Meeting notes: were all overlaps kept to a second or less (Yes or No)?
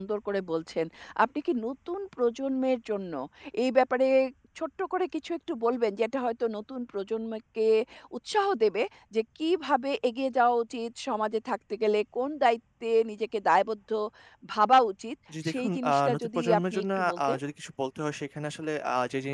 No